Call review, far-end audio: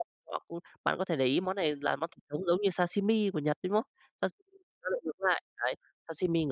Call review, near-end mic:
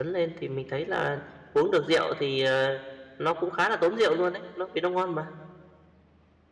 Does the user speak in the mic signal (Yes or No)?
Yes